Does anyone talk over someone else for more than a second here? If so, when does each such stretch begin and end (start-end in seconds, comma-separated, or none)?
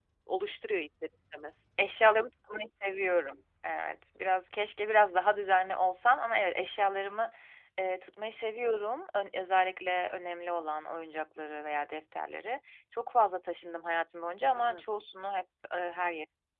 none